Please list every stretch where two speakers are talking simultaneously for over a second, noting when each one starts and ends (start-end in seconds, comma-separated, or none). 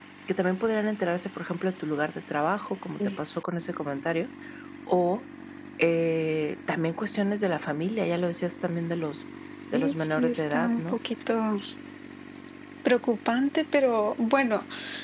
9.7-11.0